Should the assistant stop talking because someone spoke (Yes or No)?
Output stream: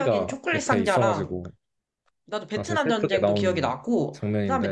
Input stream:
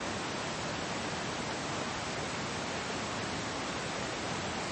No